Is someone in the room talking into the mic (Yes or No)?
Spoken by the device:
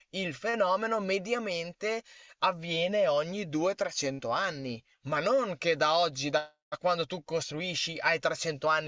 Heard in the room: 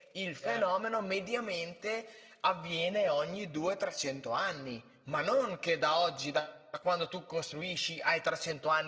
Yes